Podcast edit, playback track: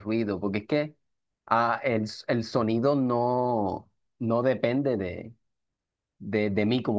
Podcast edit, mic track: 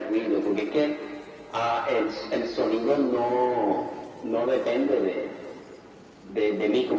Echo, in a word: present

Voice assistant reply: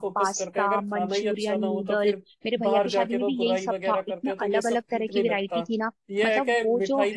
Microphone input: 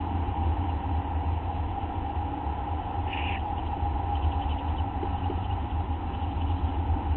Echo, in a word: none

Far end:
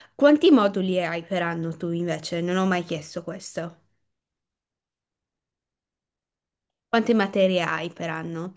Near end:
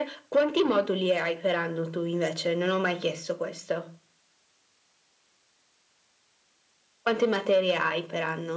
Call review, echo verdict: present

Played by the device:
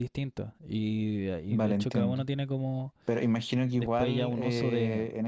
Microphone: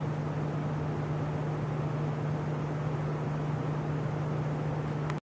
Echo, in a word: none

